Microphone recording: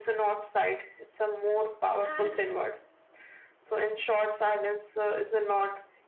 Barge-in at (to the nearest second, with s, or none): 2 s